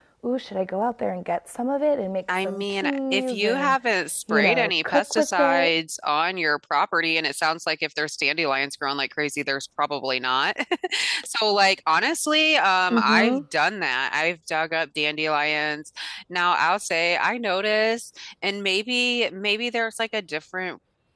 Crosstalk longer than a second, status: present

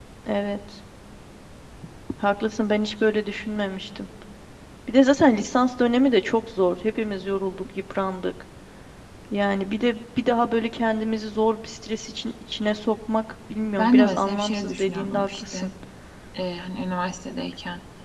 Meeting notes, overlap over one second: present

